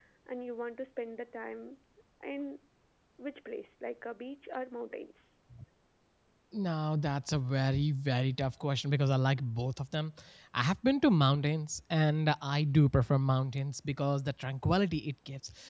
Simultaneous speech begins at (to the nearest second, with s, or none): none